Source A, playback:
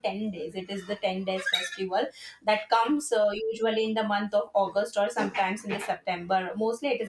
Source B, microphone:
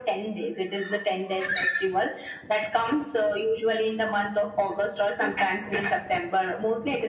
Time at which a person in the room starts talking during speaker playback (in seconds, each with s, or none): none